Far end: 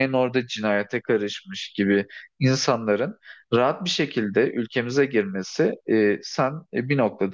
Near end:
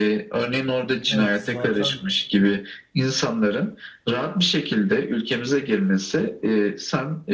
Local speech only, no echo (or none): Evet zaten